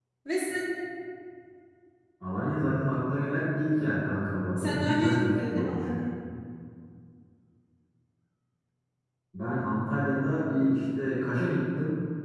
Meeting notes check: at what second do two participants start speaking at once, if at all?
4.6 s

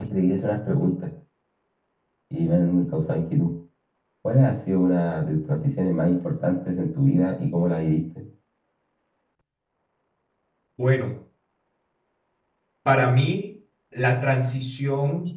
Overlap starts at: none

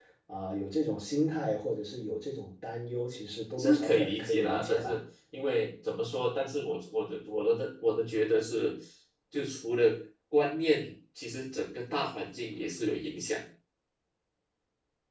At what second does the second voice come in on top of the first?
3.6 s

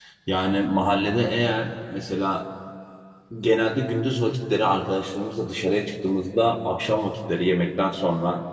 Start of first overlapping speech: none

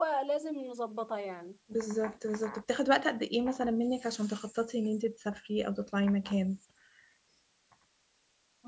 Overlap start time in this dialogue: none

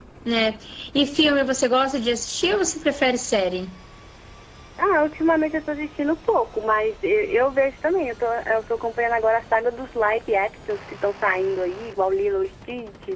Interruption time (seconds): none

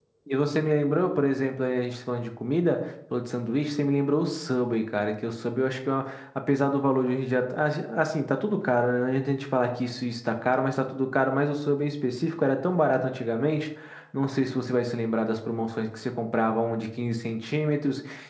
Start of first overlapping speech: none

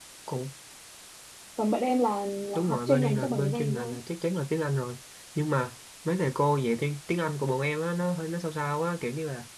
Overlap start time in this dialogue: 2.5 s

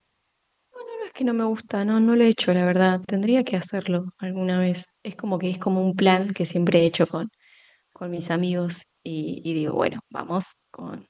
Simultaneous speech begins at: none

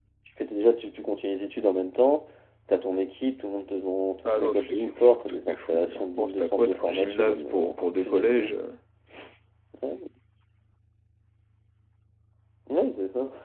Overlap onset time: 4.2 s

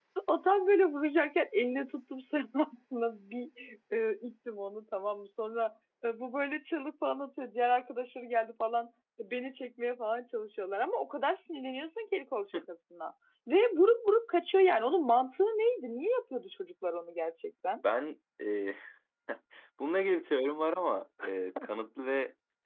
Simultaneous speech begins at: none

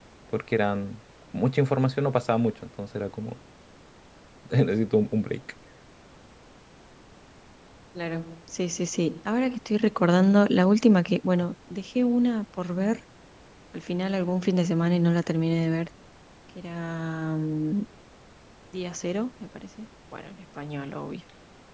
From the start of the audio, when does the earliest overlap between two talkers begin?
none

